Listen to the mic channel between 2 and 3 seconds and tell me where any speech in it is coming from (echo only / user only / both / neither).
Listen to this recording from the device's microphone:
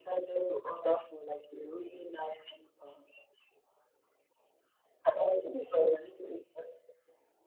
echo only